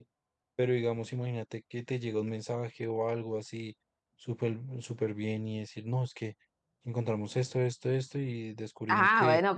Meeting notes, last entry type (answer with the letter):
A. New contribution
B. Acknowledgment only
A